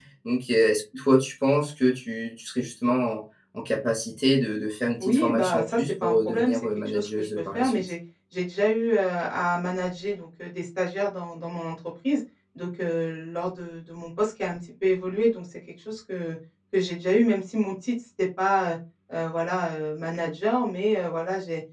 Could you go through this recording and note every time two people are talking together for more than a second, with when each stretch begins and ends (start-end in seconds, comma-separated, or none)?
5.0-7.9